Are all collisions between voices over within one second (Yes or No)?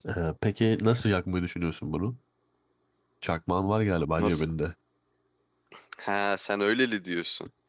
Yes